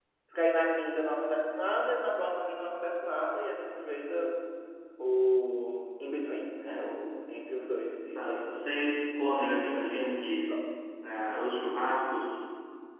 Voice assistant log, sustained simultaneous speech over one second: none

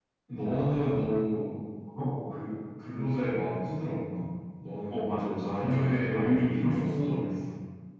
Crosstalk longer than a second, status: present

